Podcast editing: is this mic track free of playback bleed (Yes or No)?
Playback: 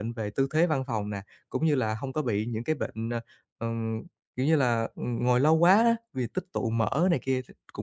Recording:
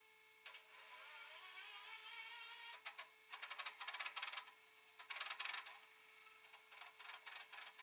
Yes